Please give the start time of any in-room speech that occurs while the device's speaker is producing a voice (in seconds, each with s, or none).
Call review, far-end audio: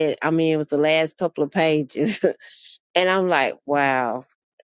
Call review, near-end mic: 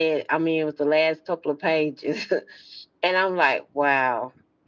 none